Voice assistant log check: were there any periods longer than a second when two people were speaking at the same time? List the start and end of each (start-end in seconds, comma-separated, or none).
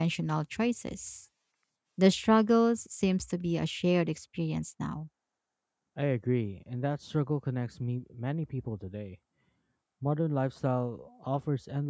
none